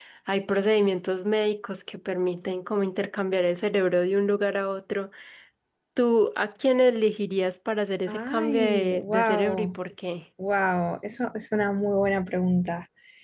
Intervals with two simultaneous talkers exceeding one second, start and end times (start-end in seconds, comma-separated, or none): 8.1-9.8